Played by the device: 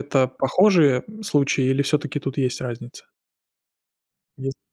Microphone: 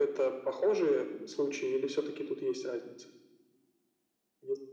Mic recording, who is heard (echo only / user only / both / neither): echo only